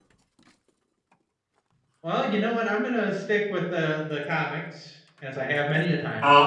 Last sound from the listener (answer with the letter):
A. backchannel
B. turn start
B